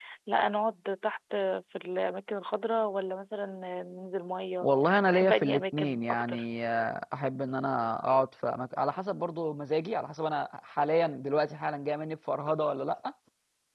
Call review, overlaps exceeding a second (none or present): present